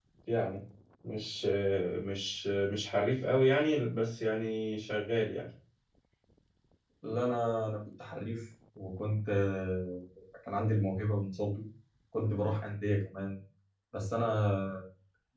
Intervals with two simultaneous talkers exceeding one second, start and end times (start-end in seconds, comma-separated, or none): none